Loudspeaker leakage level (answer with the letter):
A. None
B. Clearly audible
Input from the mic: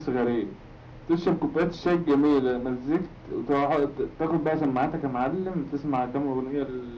B